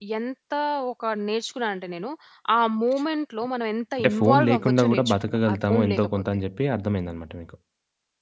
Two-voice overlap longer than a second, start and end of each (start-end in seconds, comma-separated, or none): 4.0-6.2